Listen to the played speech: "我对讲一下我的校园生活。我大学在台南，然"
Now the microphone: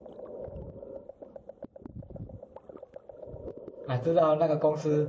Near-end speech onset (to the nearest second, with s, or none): 4 s